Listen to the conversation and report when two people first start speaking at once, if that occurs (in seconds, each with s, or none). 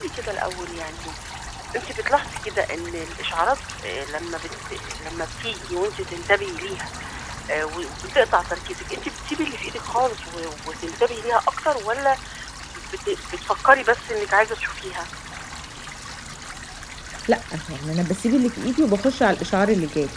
none